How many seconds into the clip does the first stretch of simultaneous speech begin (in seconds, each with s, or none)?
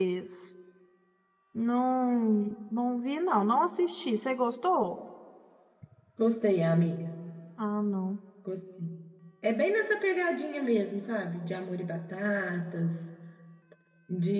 none